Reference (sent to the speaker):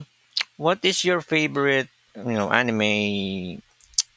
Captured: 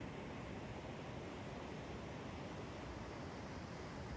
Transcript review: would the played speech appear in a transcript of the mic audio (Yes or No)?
No